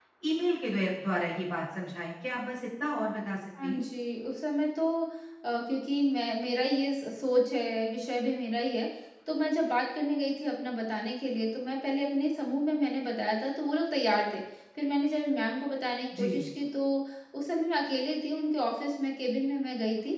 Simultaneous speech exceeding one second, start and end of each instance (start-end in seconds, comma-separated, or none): none